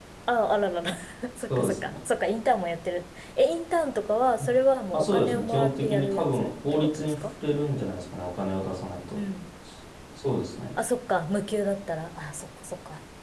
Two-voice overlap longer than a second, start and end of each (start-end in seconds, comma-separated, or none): 4.9-7.1